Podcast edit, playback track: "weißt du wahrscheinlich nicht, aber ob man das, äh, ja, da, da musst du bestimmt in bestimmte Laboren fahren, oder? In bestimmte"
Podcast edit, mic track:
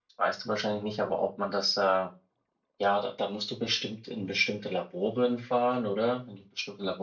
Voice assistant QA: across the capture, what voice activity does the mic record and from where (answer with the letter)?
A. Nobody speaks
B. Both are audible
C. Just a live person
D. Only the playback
D